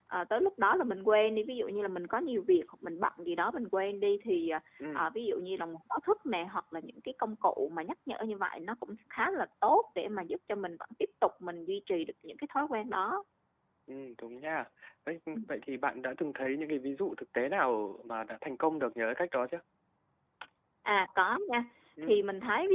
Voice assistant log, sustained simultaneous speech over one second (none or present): none